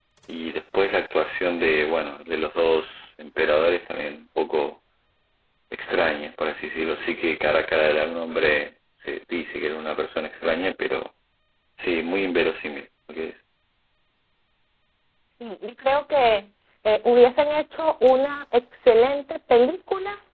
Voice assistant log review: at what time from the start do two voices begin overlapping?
none

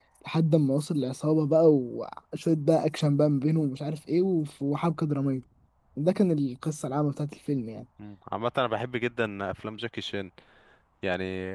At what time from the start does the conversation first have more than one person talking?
none

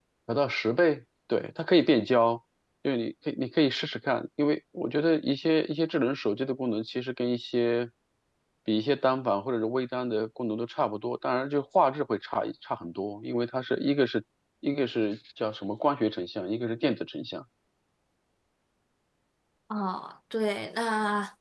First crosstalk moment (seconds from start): none

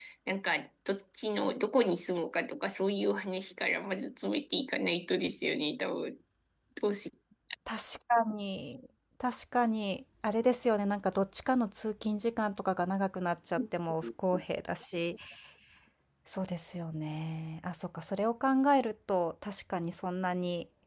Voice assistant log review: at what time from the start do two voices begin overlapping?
none

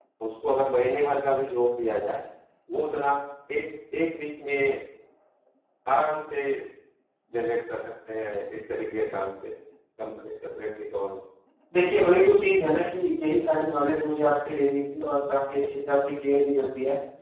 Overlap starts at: none

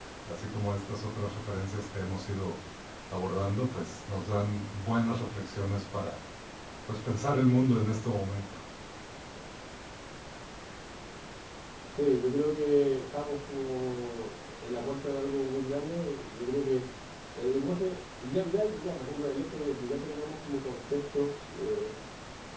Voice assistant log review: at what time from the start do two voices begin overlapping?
none

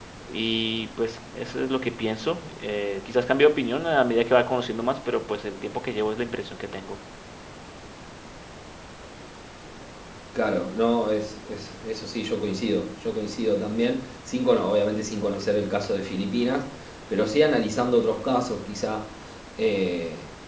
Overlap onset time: none

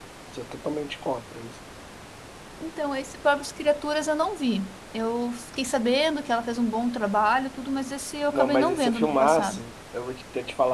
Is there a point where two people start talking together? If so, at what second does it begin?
8.3 s

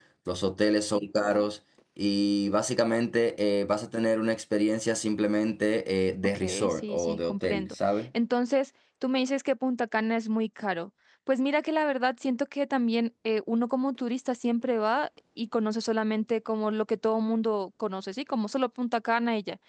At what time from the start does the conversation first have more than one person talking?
6.2 s

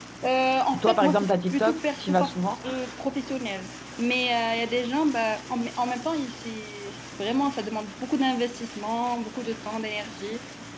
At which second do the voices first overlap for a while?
0.8 s

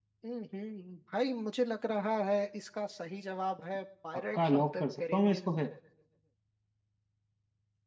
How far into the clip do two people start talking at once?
4.1 s

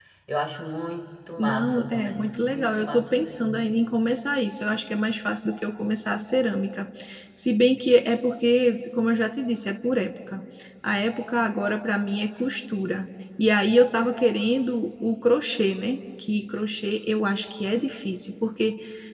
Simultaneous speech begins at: 1.4 s

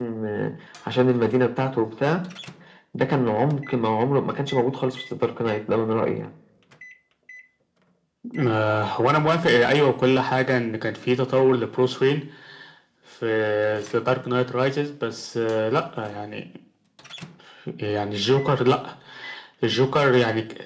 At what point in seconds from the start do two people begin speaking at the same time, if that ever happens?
none

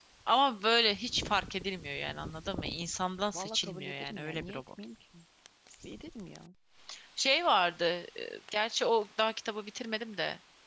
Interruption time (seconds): 3.3 s

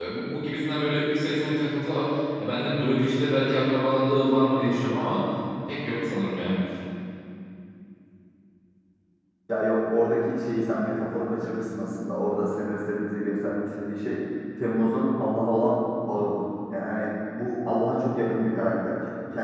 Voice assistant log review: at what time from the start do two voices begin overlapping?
none

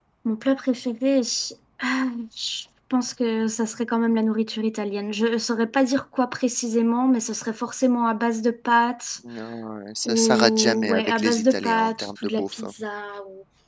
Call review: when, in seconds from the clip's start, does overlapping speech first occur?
10.0 s

